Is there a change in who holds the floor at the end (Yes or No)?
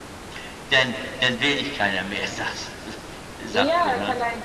Yes